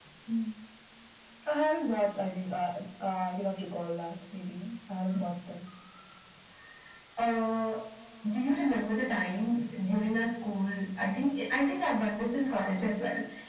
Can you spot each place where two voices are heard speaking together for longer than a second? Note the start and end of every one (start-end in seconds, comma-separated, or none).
none